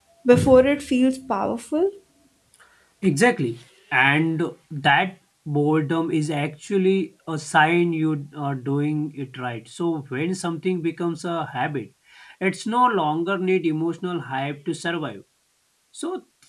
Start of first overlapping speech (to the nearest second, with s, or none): none